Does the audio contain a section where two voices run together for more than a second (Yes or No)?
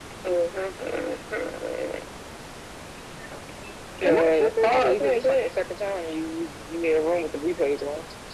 Yes